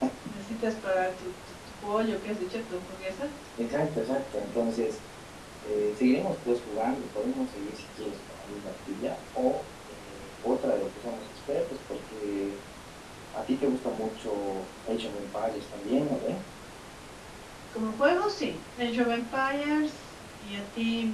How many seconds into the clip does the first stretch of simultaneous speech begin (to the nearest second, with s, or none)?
none